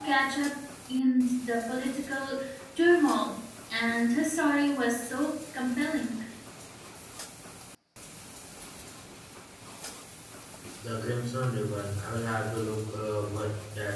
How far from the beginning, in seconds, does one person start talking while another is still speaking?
none

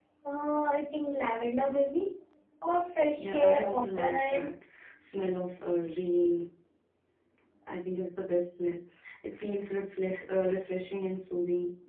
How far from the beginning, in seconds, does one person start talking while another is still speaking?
3.2 s

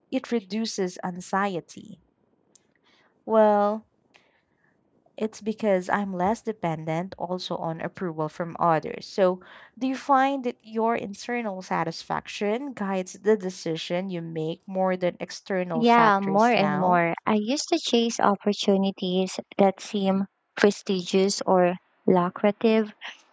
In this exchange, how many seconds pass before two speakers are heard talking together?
15.7 s

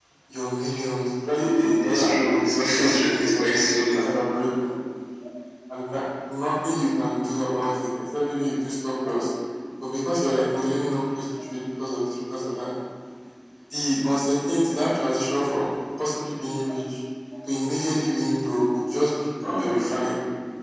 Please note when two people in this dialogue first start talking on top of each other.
1.4 s

